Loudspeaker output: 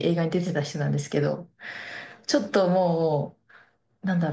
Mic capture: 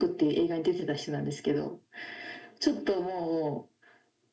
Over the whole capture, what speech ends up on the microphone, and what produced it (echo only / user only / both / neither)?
echo only